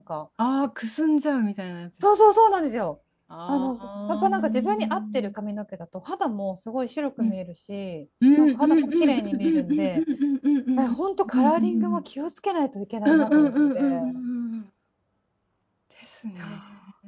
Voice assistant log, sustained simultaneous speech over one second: present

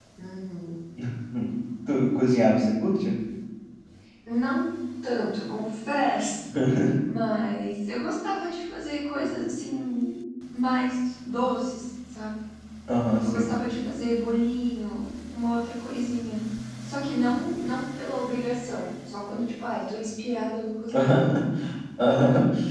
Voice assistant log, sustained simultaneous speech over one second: none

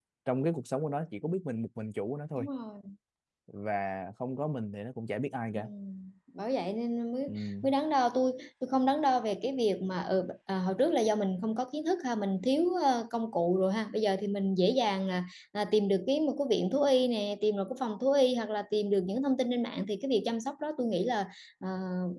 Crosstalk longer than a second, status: none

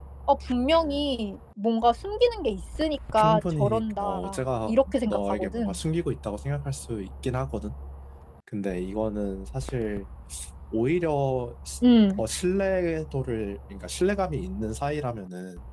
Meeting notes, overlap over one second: present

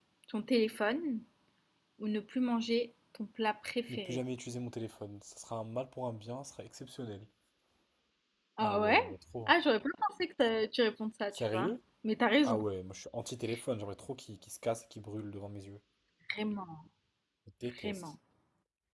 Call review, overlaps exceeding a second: none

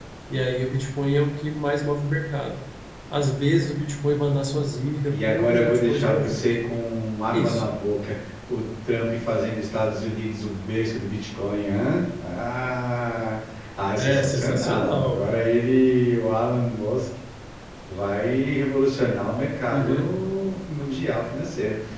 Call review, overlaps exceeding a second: present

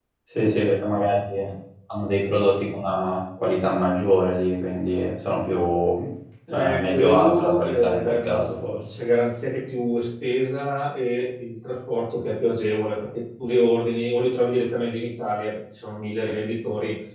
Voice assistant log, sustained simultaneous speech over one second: present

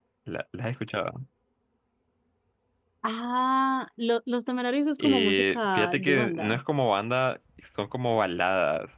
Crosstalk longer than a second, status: present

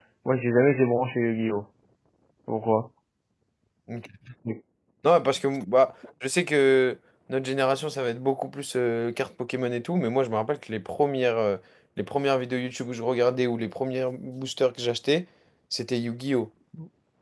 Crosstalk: none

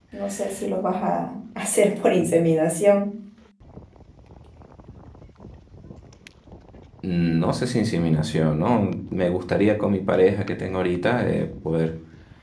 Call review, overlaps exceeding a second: none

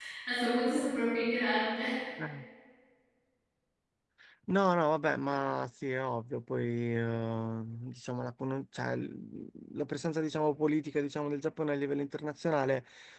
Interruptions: none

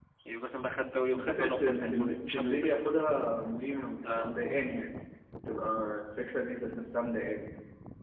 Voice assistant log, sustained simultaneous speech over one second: present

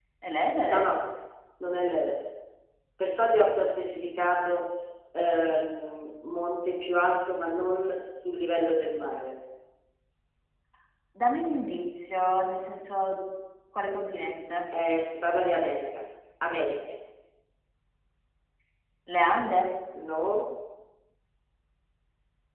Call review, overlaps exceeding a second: none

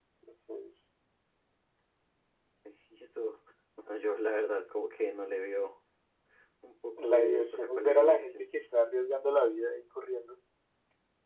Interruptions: present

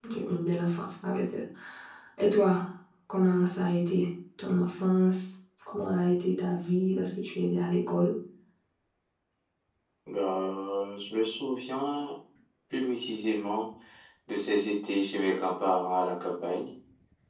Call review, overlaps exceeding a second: none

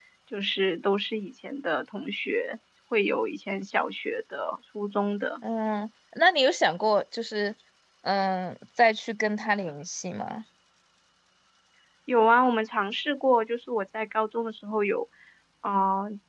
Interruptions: none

